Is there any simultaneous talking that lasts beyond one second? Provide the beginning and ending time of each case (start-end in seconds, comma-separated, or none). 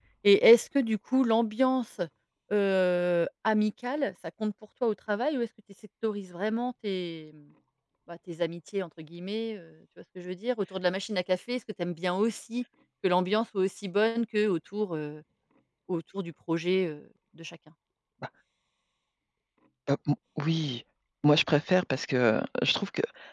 none